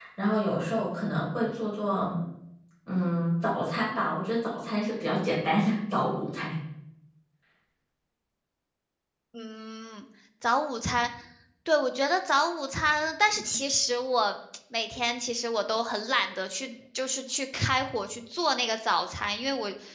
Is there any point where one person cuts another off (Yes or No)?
No